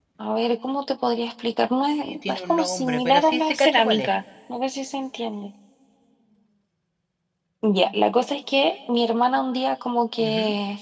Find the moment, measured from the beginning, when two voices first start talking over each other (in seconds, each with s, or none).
2.0 s